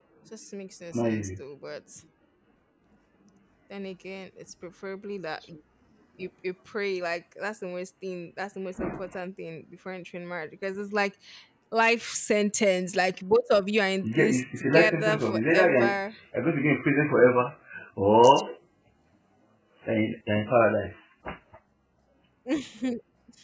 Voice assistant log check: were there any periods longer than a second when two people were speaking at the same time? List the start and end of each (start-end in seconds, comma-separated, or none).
14.0-16.0